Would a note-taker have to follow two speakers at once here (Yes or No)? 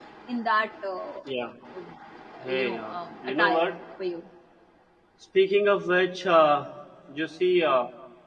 Yes